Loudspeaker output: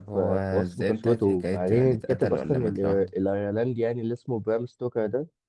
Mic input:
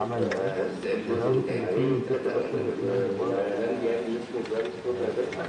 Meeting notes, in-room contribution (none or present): present